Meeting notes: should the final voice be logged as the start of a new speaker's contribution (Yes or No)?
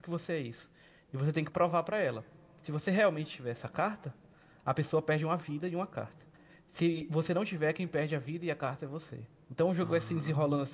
No